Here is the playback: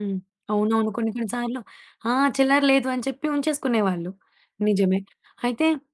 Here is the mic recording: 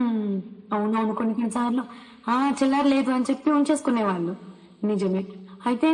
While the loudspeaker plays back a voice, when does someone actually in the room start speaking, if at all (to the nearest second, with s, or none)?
none